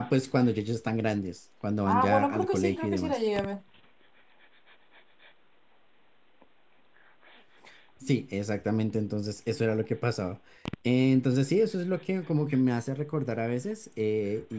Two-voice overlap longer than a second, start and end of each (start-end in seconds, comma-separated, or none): 1.9-3.2